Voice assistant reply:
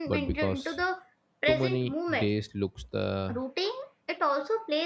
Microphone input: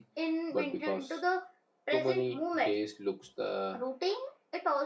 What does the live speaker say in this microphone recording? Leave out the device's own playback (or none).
none